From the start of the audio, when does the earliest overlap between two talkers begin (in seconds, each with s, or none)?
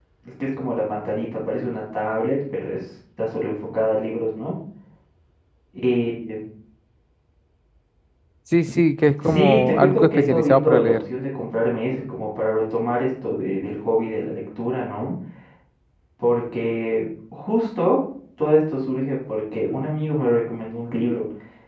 9.2 s